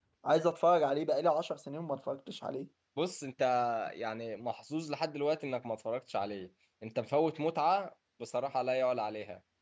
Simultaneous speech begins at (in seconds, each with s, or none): none